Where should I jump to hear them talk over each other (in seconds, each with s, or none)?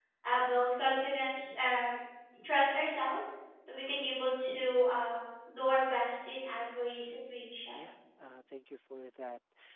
none